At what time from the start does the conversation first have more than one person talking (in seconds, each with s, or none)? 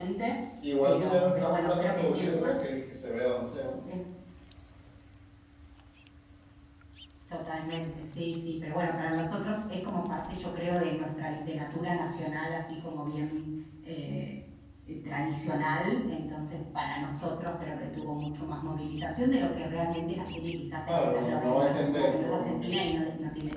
0.8 s